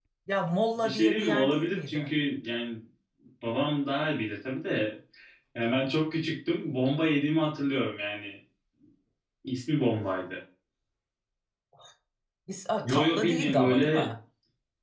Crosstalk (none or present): present